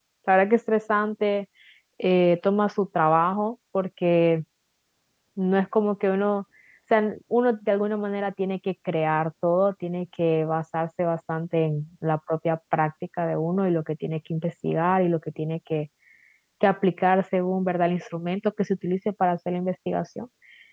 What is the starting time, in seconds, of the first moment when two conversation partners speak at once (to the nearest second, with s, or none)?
none